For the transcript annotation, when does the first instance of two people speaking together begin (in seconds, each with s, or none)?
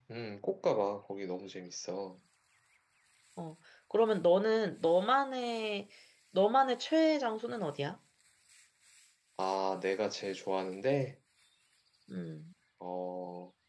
none